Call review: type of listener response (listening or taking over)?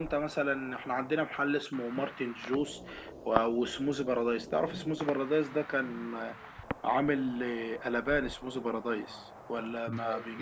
taking over